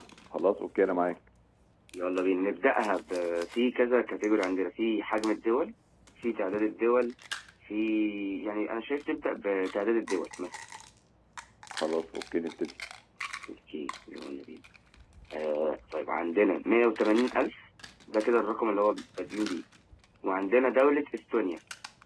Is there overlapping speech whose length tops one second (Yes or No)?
No